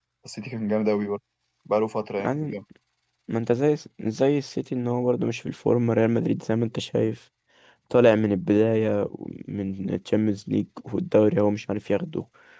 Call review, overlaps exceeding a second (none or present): none